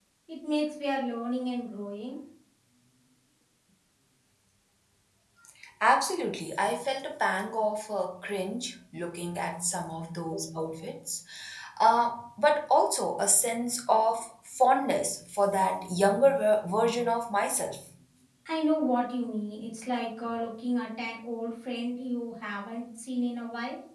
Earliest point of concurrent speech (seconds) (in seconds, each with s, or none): none